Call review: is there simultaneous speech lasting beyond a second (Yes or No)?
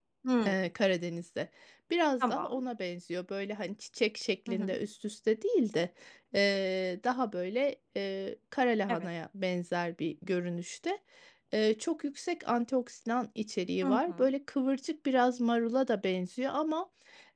No